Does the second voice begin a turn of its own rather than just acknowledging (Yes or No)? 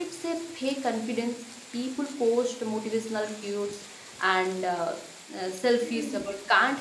No